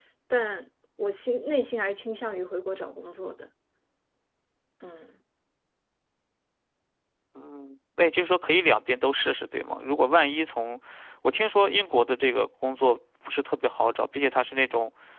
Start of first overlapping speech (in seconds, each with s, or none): none